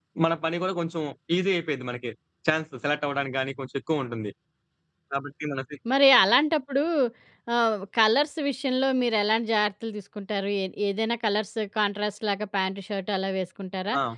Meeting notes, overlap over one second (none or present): none